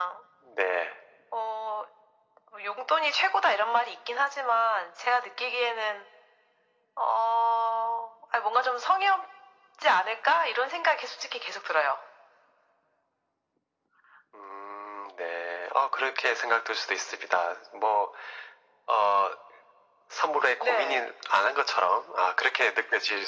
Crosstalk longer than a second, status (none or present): none